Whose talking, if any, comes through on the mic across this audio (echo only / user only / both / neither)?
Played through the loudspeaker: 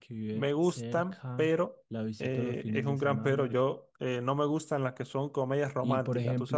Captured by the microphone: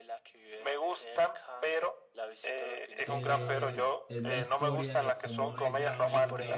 both